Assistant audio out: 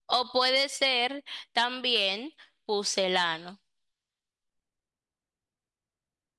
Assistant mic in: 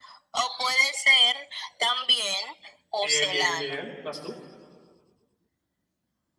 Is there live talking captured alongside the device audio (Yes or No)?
Yes